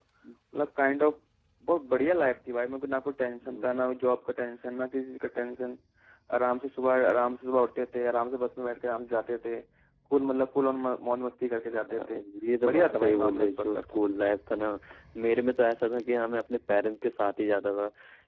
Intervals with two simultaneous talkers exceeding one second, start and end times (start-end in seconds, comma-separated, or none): 12.6-14.0